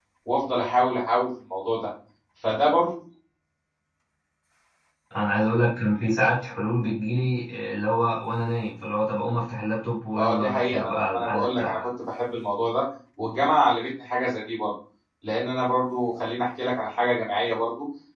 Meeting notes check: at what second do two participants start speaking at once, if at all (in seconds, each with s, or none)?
10.2 s